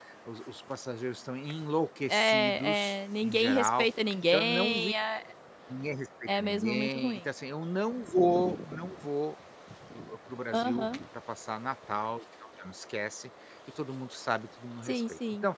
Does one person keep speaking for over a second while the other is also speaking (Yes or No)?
Yes